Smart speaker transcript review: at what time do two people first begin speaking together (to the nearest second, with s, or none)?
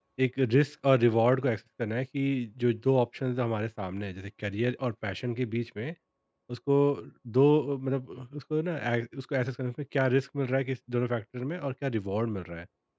none